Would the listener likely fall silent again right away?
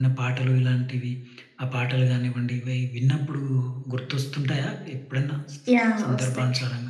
No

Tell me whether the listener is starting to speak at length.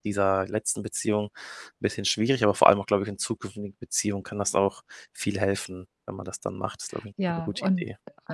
Yes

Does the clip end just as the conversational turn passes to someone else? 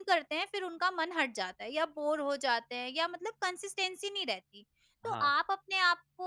No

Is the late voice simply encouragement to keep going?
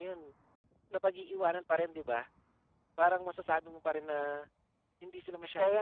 No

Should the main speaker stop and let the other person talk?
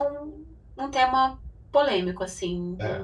Yes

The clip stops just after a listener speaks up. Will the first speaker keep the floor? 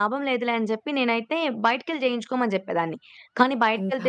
Yes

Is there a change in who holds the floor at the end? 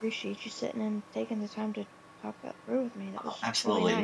Yes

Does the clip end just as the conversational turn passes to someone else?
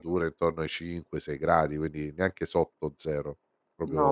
Yes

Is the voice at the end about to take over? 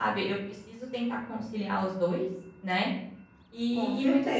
No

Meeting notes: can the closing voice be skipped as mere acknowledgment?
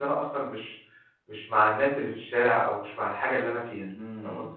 No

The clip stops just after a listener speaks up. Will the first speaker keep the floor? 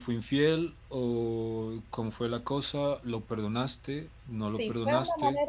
No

